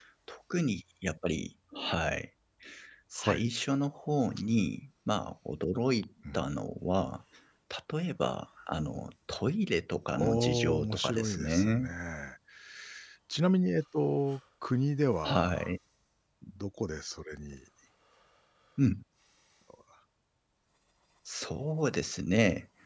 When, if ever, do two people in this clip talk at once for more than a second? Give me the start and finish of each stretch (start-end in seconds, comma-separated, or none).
10.2-11.9